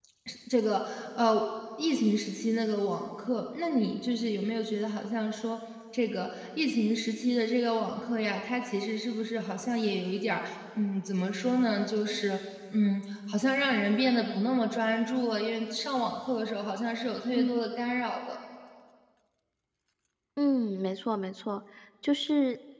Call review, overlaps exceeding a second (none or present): none